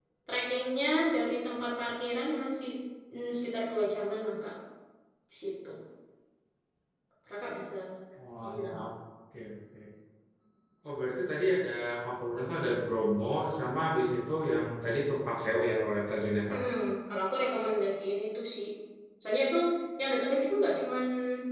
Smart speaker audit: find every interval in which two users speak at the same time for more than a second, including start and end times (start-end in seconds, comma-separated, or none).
none